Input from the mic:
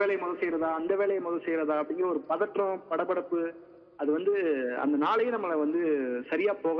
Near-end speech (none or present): none